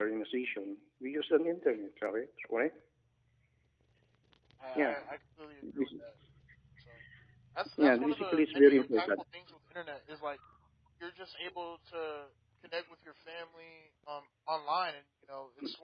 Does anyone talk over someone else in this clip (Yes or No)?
Yes